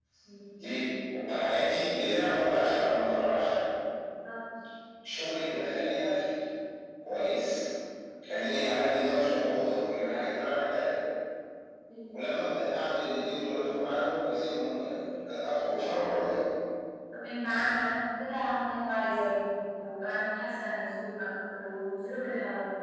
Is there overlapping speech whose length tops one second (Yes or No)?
No